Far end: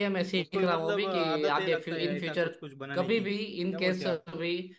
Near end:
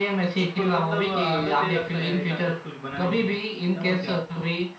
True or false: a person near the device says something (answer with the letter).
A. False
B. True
A